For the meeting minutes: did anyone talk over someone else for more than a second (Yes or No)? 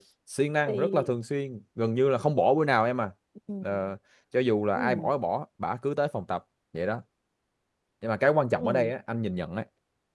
No